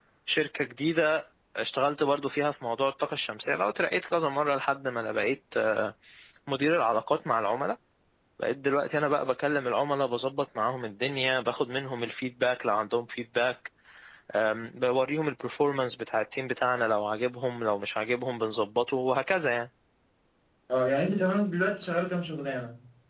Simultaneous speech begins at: none

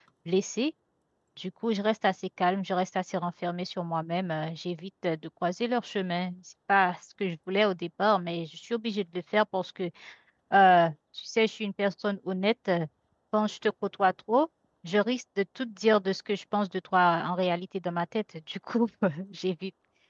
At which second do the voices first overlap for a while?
none

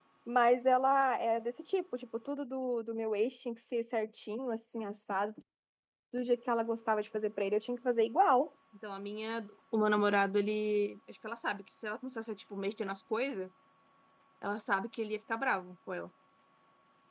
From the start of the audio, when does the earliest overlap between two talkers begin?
none

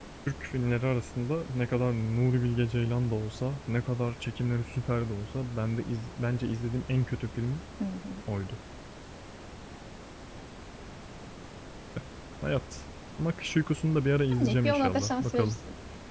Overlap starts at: 14 s

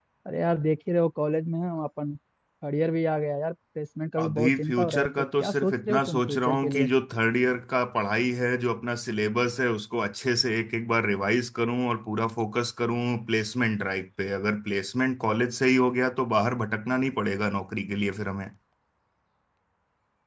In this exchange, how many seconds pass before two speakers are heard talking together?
4 s

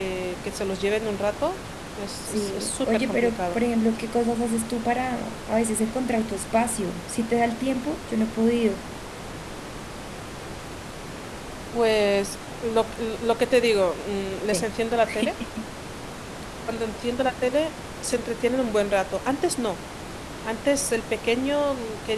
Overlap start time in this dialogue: 2 s

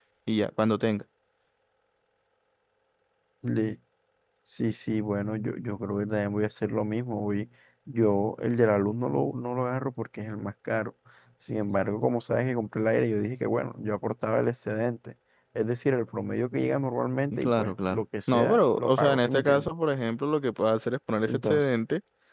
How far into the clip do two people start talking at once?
17 s

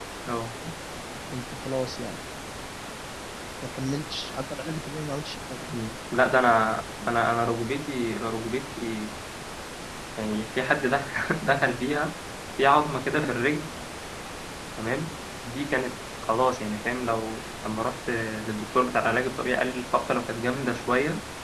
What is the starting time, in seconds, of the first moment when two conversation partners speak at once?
none

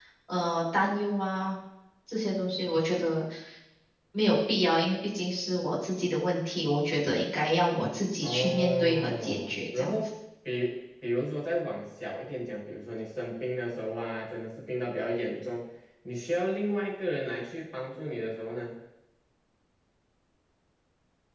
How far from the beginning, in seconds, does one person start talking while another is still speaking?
8 s

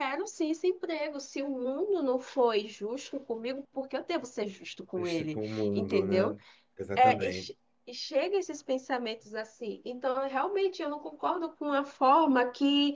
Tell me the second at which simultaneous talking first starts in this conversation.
5 s

